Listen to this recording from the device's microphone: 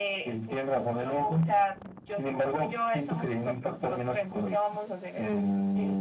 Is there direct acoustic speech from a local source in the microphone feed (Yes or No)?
No